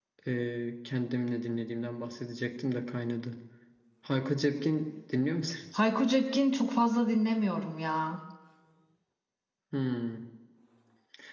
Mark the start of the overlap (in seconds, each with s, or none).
none